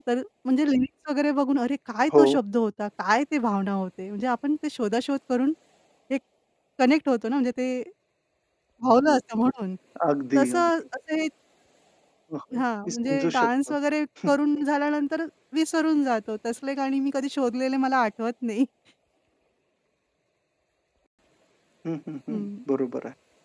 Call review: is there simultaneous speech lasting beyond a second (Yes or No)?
Yes